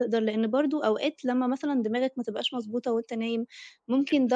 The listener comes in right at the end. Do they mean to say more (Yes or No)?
No